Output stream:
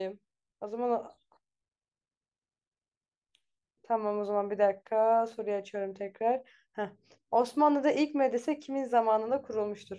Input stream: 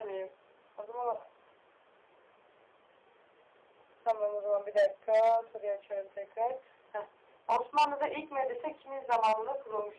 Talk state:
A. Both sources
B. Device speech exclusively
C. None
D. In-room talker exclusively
B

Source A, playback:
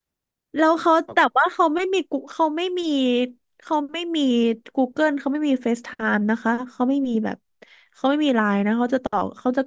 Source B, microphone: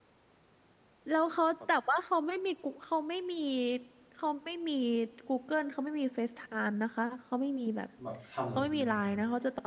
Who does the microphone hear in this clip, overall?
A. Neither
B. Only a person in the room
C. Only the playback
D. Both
D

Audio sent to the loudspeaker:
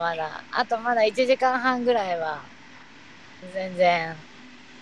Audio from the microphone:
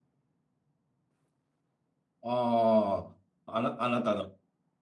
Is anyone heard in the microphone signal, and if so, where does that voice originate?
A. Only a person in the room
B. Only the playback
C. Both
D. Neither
A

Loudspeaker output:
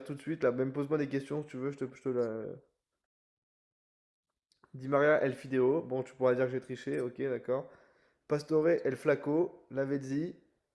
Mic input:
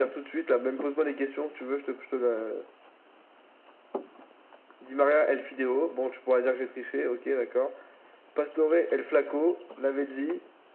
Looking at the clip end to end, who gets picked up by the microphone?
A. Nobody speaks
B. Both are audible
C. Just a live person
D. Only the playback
D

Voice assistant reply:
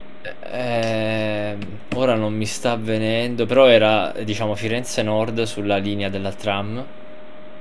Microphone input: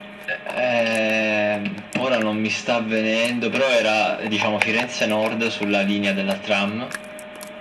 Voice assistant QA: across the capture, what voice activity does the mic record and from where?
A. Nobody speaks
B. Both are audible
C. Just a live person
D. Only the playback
D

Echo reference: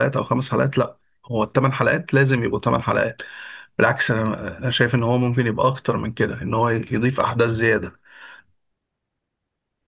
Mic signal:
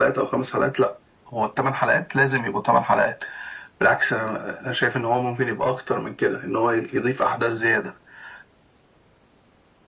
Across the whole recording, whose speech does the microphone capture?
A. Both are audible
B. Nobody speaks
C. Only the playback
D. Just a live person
C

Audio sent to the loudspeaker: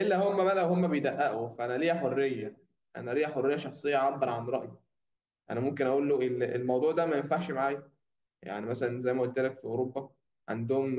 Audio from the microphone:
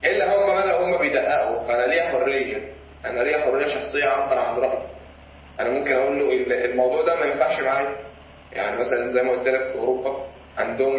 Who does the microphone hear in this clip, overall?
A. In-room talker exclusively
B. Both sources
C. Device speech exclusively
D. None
C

